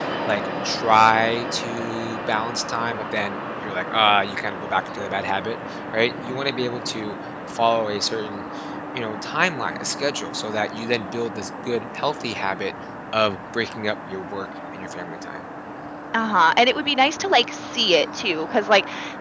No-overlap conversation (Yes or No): Yes